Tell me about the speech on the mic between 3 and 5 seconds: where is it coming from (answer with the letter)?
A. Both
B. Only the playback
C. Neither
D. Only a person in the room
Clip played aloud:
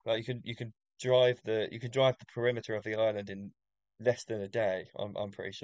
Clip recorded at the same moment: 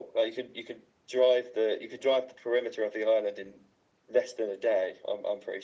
B